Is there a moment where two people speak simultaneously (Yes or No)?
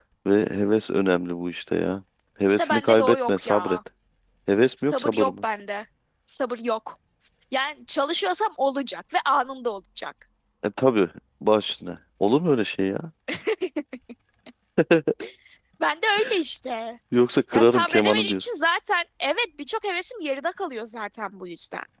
Yes